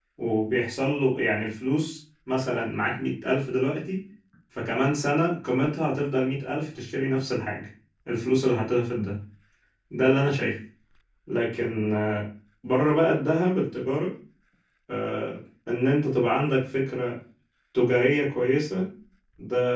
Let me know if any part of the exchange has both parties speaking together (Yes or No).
No